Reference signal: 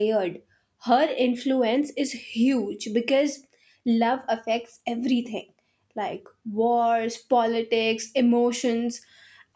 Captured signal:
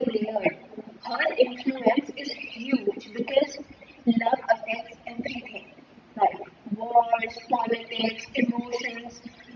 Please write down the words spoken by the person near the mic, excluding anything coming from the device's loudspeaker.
none

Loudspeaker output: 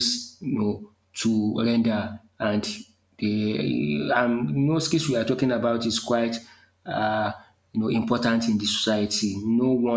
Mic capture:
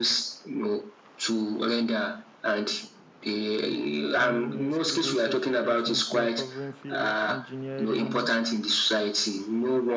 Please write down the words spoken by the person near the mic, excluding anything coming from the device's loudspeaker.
and you know skill-based certifications you know covering fields engineering

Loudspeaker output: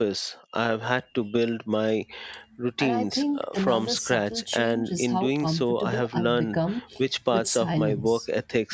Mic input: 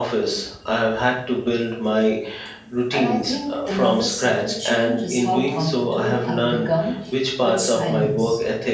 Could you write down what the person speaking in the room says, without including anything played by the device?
none

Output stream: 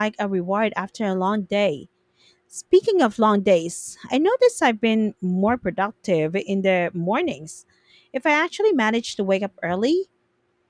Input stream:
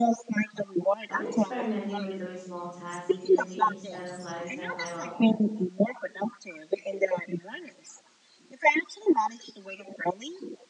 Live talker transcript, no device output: I've been experimenting with doing small tasks immediately instead of letting them pile up.

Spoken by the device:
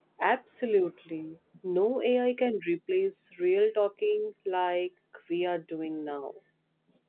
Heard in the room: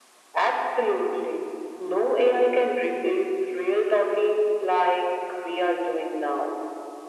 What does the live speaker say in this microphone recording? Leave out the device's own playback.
none

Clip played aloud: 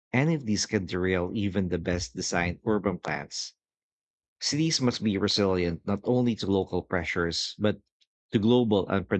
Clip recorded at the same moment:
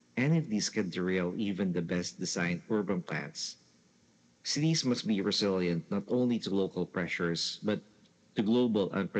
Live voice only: none

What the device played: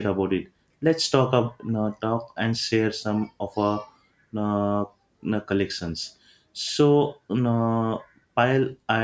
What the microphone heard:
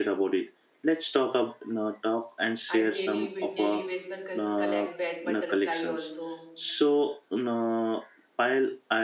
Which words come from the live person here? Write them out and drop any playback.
I daily ba- daily basis पर co- collect bat butterfly also.

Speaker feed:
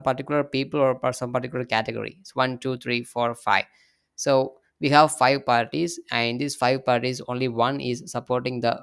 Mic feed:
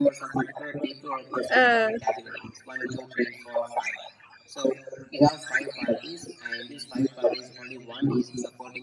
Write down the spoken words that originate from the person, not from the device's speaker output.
Uh,

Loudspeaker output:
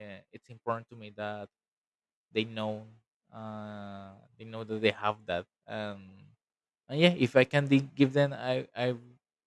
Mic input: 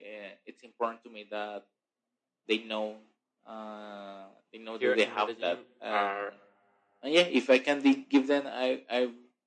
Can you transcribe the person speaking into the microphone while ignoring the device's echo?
here in Medellin are

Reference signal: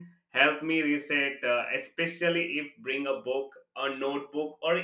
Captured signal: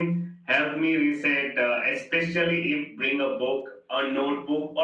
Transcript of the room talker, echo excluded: none

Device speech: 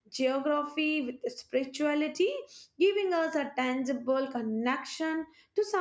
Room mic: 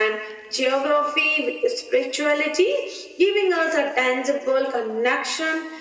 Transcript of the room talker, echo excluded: none

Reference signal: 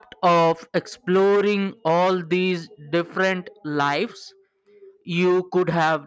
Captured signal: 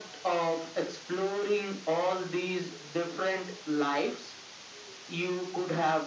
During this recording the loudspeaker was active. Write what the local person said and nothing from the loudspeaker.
none

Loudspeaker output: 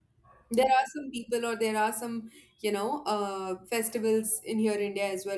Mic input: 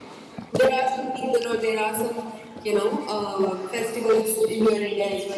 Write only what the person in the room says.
none

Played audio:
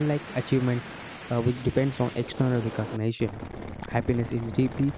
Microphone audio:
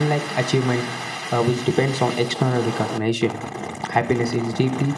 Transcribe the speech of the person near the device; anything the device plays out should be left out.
none

